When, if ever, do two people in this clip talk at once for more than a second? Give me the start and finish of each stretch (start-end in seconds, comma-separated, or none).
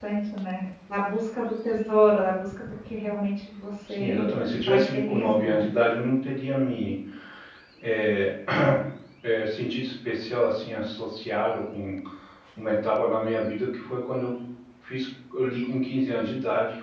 3.9-5.6